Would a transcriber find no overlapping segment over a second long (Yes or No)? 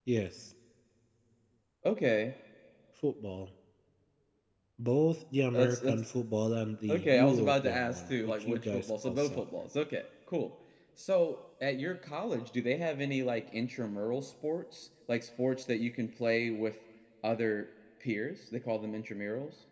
No